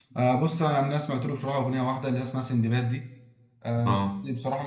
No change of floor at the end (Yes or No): Yes